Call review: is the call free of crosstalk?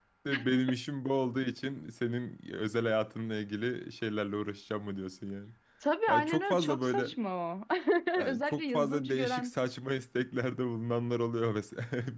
No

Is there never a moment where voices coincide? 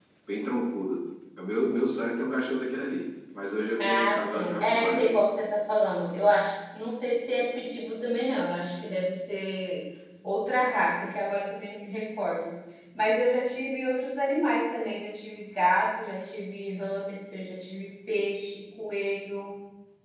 No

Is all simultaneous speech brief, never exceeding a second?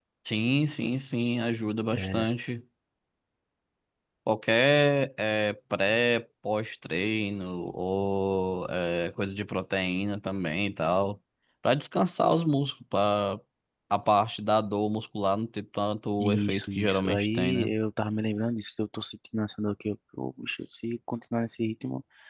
No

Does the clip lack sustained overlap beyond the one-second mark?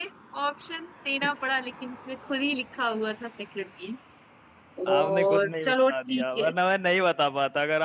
No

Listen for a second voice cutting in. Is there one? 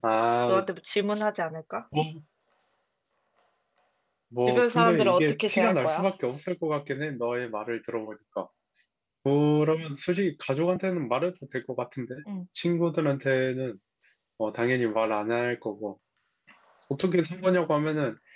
Yes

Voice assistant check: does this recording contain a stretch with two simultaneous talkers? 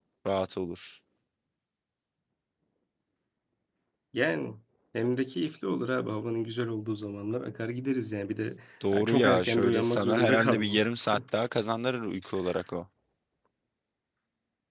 Yes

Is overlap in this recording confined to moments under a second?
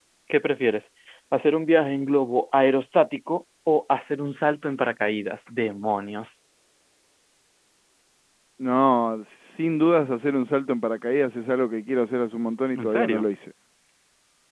Yes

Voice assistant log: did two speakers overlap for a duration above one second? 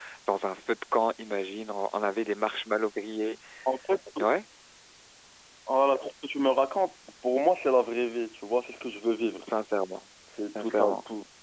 No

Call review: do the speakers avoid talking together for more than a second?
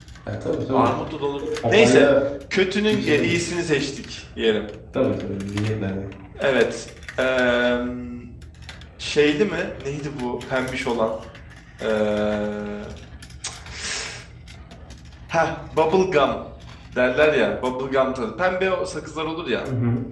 Yes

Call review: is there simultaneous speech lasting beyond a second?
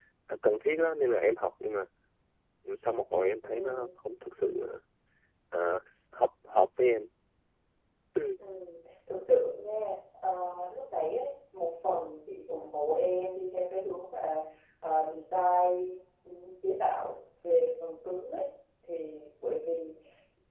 No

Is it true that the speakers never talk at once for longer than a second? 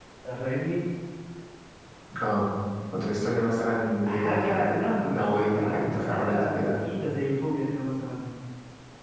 No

